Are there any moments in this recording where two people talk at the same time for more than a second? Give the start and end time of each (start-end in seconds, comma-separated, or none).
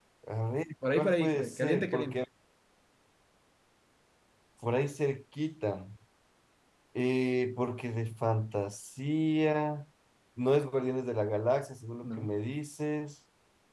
0.9-2.2